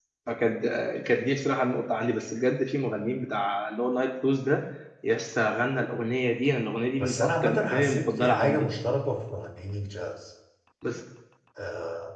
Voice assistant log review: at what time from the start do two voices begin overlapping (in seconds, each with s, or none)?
7.0 s